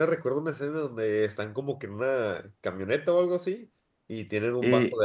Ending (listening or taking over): listening